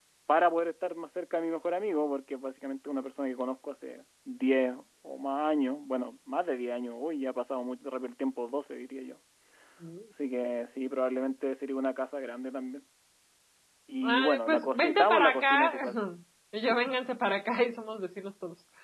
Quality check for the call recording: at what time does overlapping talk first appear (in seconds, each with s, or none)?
14.0 s